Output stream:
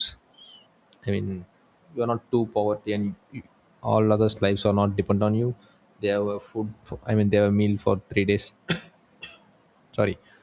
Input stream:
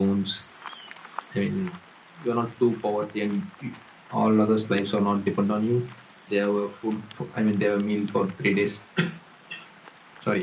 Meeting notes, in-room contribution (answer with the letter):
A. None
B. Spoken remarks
A